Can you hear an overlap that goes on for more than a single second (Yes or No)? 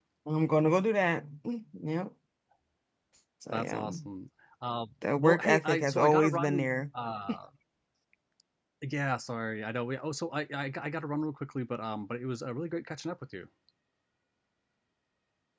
Yes